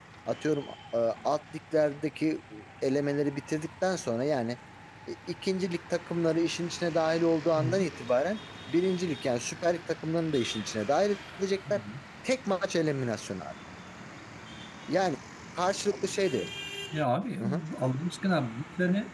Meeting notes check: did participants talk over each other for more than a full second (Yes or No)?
No